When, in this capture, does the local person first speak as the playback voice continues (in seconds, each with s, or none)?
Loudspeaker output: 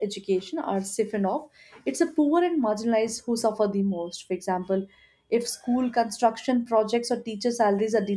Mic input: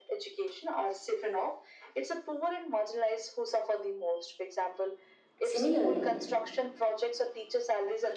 5.4 s